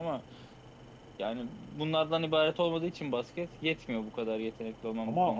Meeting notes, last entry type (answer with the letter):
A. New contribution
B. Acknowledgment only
A